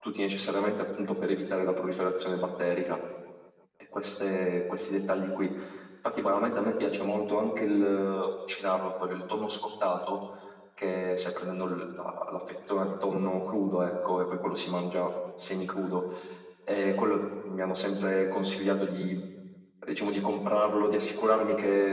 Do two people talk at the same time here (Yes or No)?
No